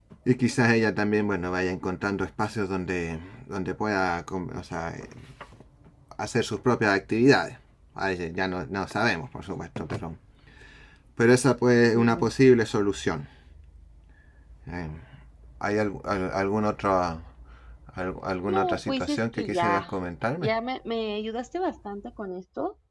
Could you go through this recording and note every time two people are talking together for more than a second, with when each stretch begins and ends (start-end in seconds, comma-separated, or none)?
18.5-19.9